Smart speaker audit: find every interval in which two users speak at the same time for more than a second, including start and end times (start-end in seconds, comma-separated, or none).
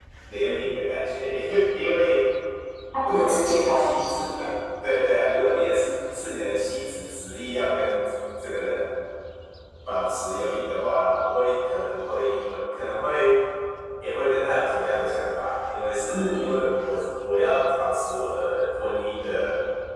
3.0-4.5